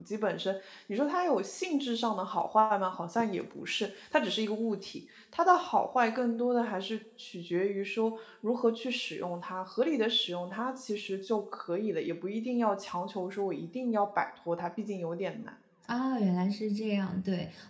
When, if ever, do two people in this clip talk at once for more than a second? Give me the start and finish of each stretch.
none

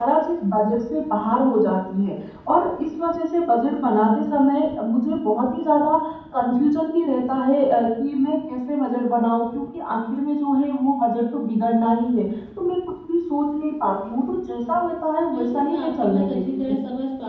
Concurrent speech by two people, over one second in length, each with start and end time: 15.3-16.7

